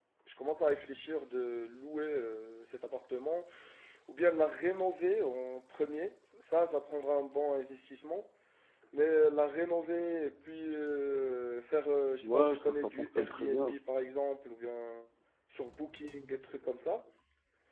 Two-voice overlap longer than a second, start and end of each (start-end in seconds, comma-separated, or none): 12.2-13.8